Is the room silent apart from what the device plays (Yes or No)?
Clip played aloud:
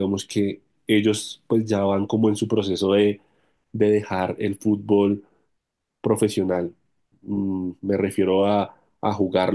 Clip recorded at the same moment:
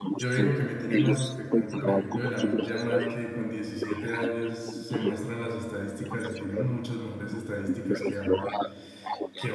No